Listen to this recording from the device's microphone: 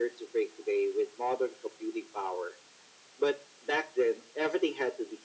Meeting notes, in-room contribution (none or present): none